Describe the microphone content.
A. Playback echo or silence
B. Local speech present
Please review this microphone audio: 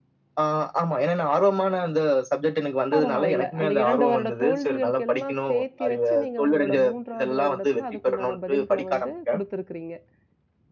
B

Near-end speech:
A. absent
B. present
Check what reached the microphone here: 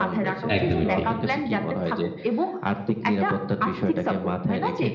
B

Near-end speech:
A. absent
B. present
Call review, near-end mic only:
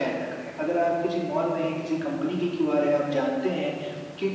A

